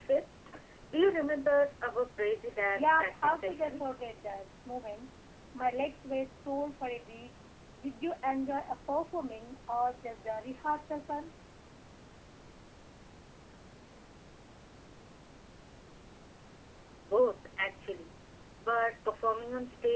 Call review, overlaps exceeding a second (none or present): present